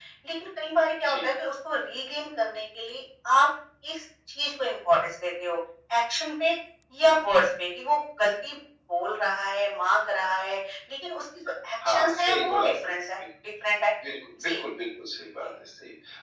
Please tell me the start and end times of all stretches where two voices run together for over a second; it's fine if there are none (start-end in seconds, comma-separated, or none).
11.9-13.1